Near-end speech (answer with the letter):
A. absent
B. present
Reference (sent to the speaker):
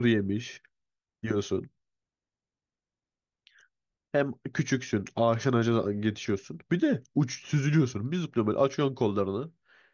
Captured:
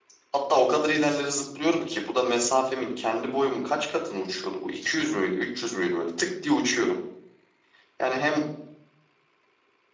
B